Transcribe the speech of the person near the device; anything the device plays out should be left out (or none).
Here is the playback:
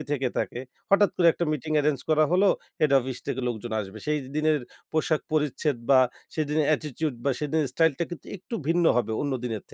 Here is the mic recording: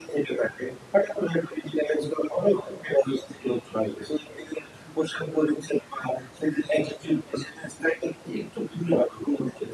none